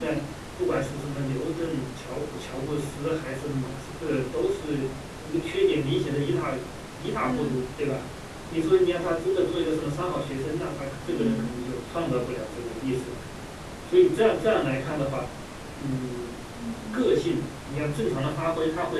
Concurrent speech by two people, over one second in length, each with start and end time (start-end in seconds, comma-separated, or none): none